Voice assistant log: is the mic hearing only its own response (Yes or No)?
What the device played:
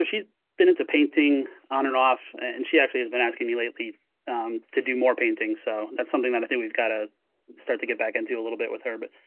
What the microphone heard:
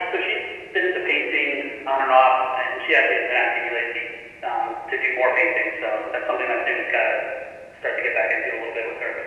Yes